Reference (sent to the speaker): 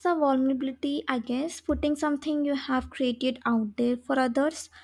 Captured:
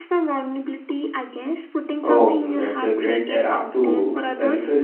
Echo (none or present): present